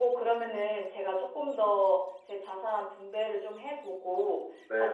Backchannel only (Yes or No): Yes